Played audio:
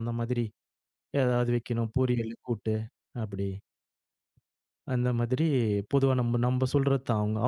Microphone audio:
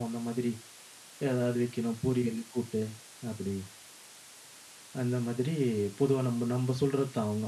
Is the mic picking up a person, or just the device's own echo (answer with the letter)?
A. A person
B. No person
B